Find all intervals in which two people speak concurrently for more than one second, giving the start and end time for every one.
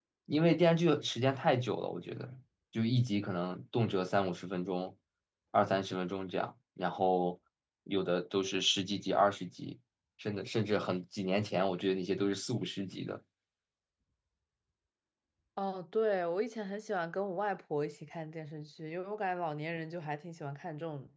none

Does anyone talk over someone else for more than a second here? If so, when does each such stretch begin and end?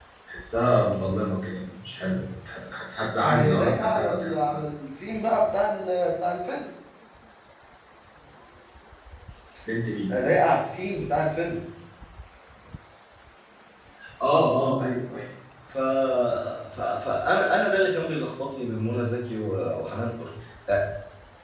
3.2-4.6

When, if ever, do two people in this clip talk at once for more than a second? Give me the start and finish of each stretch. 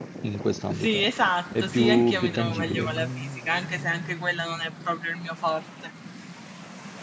1.6-3.1

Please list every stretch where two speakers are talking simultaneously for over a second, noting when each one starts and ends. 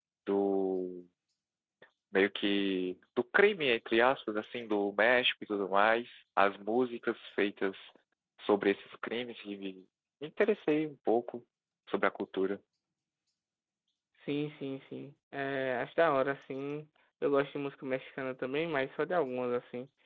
none

